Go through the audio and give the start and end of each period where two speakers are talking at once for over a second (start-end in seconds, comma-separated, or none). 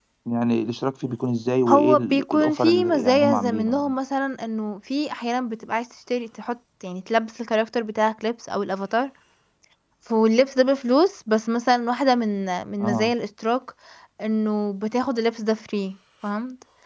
1.7-3.9